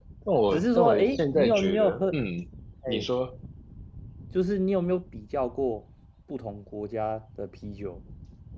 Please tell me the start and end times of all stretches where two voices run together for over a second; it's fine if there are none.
0.5-2.0

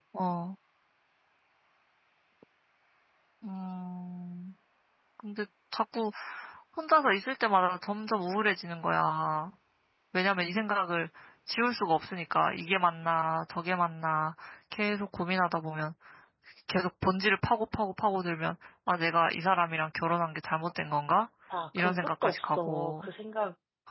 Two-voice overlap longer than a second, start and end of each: 21.8-23.1

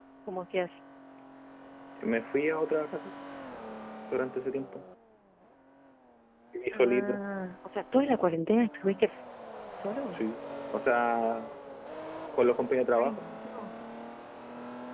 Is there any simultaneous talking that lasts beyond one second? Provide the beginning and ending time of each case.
none

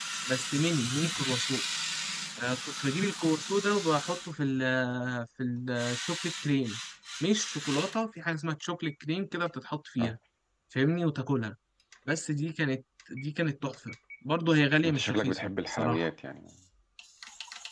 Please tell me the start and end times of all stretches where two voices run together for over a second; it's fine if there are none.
14.8-16.1

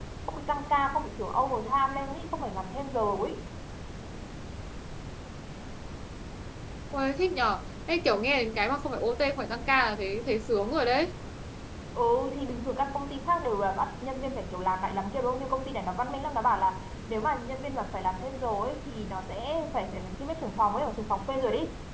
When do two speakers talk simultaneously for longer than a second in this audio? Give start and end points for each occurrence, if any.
none

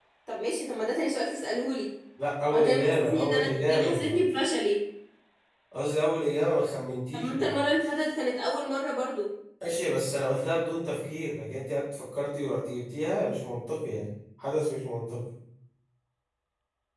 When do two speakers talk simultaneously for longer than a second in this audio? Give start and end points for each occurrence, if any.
2.5-4.2

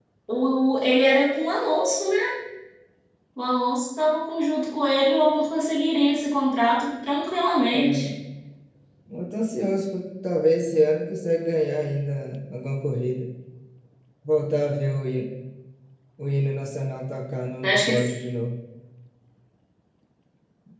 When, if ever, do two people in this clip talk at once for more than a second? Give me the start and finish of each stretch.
none

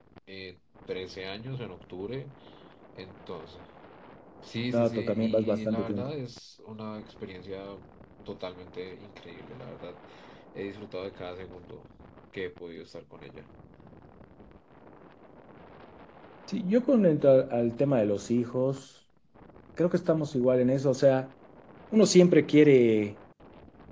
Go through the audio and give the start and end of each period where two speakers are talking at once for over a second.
4.7-6.1

